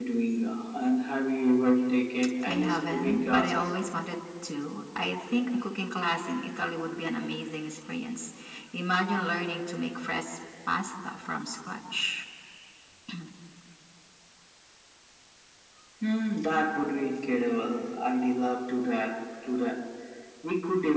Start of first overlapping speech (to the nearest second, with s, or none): 2 s